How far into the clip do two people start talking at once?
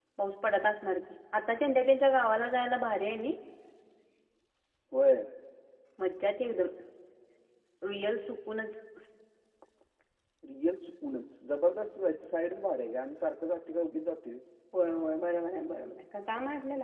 none

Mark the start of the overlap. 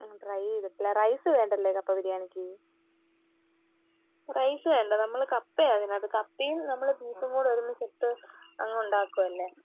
none

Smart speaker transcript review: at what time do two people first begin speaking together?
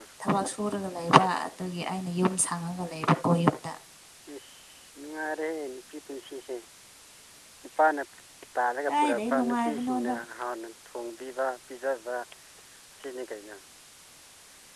9 s

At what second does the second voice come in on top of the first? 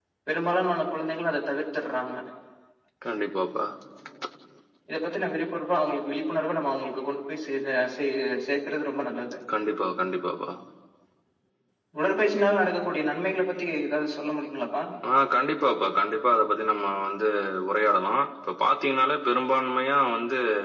none

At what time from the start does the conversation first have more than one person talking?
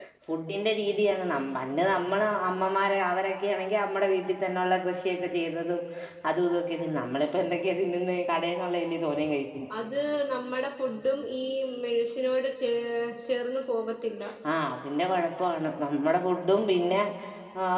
none

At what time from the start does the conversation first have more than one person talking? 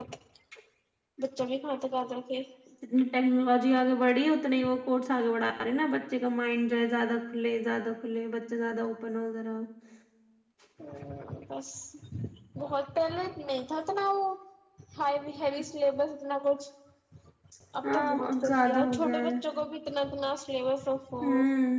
18 s

